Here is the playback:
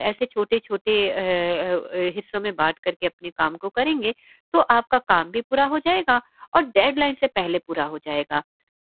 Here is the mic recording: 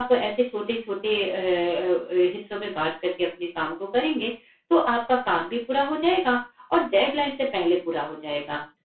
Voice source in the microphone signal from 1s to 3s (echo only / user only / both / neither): echo only